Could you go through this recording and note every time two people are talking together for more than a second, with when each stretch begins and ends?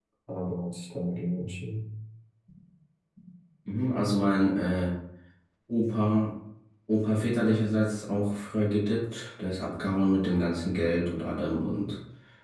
none

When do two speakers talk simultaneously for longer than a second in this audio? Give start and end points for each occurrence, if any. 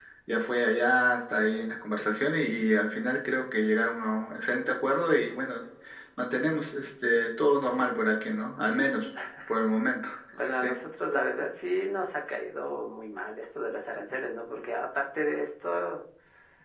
none

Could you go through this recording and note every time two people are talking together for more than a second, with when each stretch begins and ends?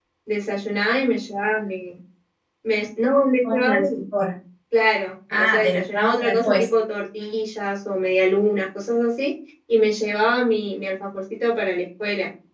5.4-6.7

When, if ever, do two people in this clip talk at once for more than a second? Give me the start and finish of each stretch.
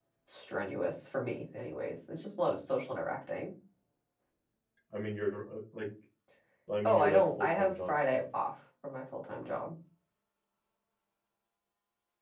6.8-8.2

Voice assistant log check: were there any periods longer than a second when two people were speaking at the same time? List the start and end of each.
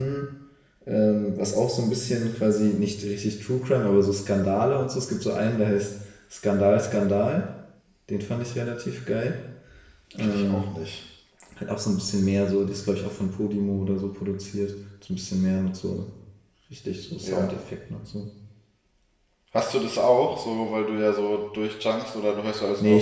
none

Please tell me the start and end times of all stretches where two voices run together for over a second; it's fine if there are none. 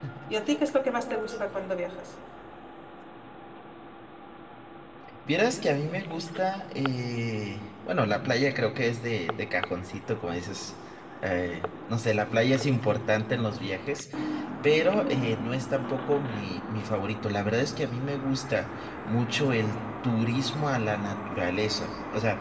none

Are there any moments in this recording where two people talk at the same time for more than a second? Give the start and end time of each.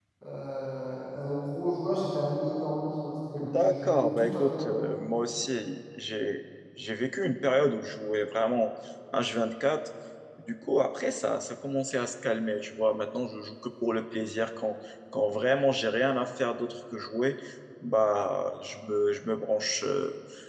3.5-4.7

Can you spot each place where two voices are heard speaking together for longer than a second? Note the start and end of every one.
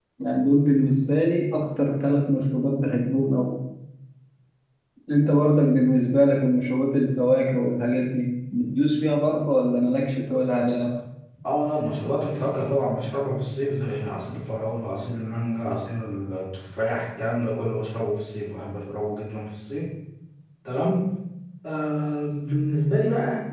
none

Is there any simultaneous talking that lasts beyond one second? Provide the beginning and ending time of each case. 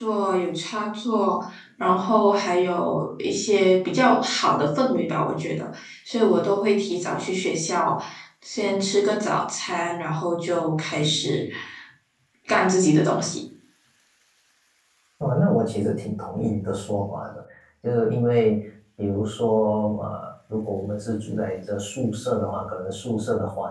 none

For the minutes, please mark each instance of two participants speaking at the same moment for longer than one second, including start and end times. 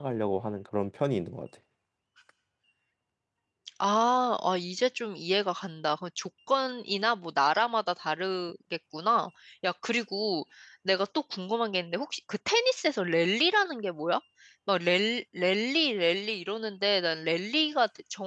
none

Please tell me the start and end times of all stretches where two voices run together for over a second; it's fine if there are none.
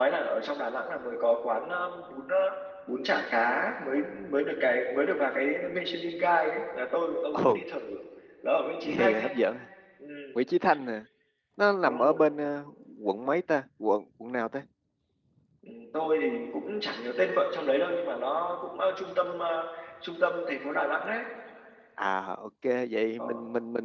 none

